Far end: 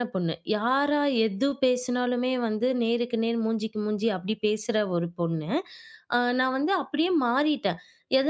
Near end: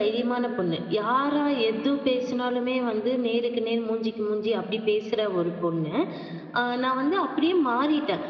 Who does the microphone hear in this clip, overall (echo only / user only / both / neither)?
echo only